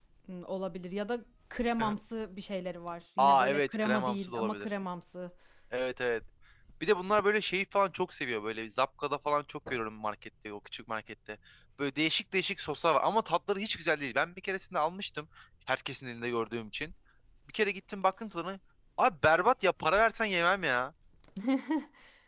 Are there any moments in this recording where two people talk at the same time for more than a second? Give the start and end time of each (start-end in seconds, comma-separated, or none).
3.2-4.7